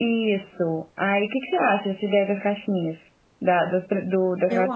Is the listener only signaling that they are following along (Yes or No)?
Yes